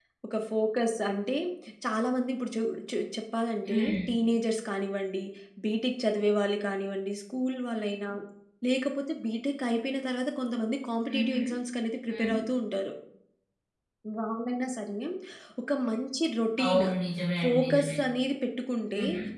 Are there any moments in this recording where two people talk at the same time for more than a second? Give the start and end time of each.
none

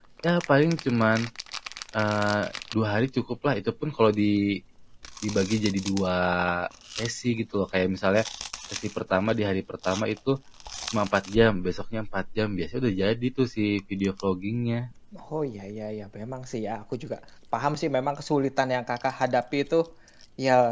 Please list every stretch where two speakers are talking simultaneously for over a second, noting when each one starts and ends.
none

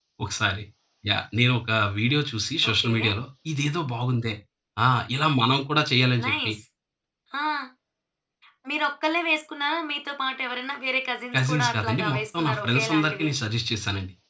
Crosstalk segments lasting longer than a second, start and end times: 11.3-13.3

